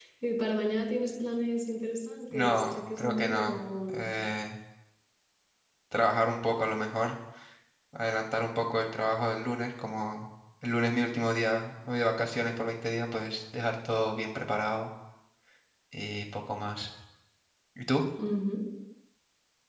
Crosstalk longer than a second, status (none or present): present